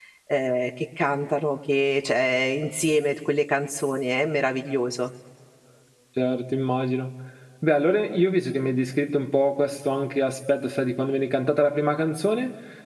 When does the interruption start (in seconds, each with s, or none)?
none